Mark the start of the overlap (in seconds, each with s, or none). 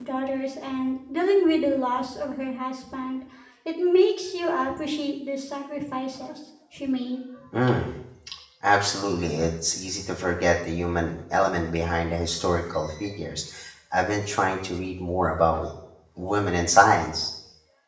none